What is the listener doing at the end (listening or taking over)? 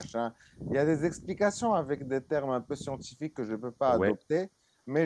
listening